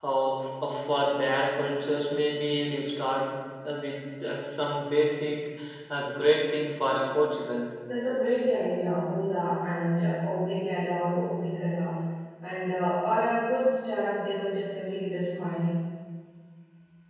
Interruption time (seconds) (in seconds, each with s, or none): none